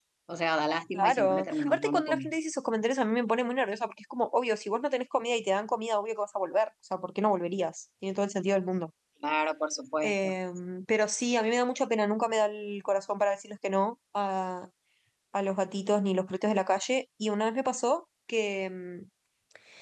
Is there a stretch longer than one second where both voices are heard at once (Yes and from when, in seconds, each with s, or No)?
Yes, from 1.0 s